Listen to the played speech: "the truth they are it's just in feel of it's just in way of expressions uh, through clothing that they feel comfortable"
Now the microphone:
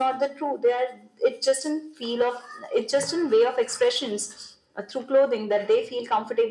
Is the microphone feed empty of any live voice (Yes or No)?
Yes